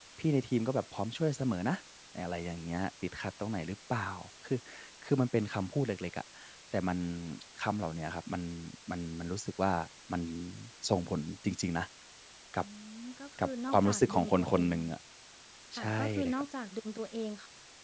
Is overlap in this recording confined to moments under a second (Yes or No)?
No